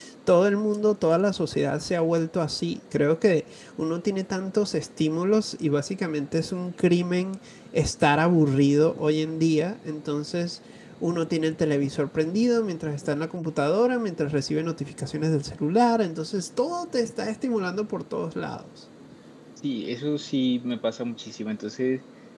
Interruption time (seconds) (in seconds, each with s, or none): none